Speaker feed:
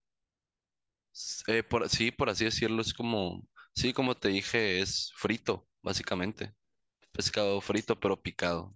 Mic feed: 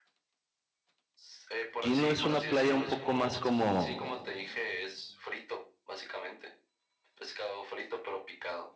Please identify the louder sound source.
user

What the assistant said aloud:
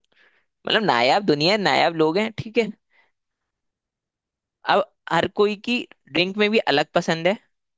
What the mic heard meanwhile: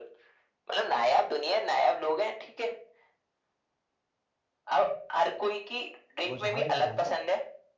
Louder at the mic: echo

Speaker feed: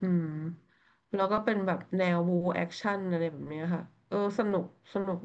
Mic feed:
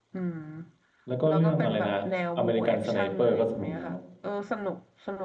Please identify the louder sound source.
user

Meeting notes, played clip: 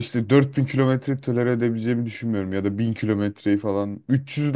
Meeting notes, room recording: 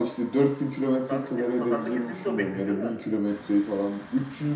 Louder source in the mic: echo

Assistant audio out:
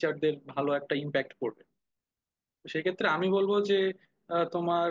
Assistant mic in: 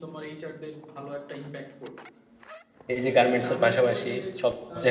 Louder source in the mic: user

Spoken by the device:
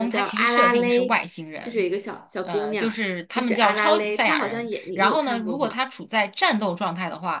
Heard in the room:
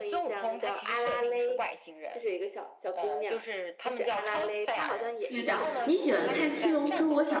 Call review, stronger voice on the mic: user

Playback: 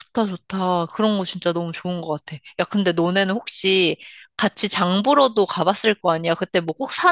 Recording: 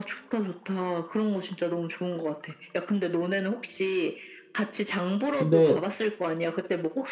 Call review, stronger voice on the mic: user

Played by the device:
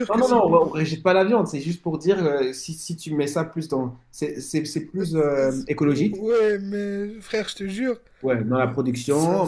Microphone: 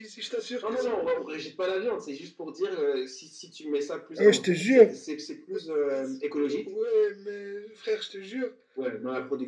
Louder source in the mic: user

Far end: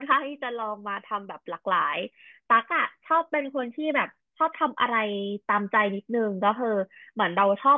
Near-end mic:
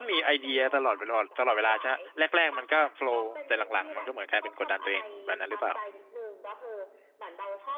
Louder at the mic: user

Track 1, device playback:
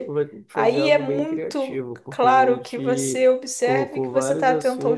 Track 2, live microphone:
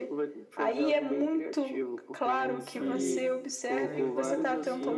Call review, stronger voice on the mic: echo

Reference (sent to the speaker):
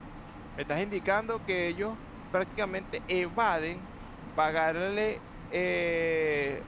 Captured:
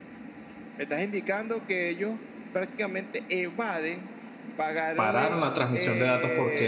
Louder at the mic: user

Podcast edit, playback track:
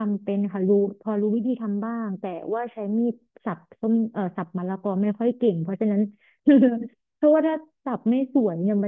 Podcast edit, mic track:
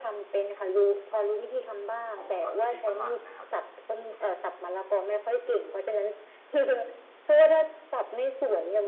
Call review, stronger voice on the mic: echo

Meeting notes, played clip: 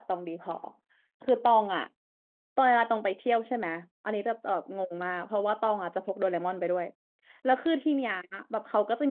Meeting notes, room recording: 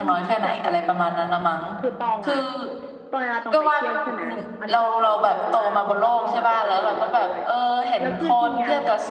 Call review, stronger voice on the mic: user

